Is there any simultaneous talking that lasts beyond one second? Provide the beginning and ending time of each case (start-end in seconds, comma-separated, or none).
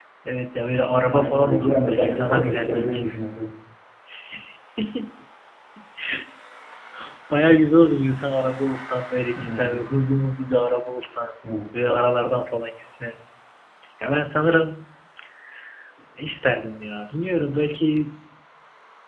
1.1-3.0